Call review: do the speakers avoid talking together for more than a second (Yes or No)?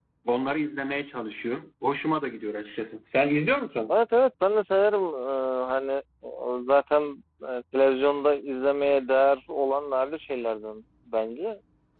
Yes